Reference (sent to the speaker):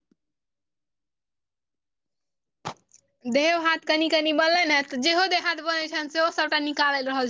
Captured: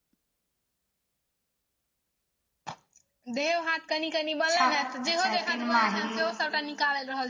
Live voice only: छम, अछा तीन माही,

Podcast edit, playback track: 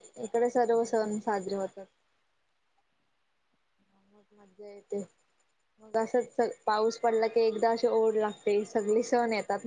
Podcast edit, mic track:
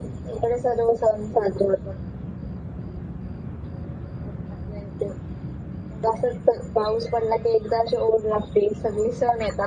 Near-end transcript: none

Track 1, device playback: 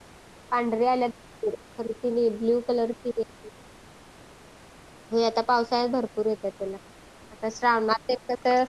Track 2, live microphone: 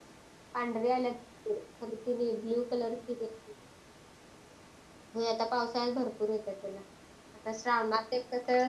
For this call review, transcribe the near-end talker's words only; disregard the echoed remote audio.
none

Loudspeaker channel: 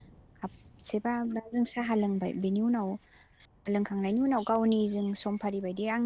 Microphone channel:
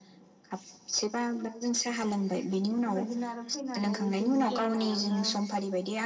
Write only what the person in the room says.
बेफोरबायदिनो आरो फैनानै एसे जिरायनायावनो

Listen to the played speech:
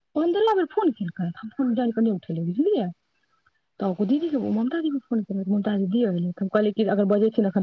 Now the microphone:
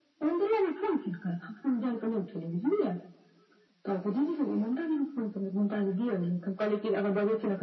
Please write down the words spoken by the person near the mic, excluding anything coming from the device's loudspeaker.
none

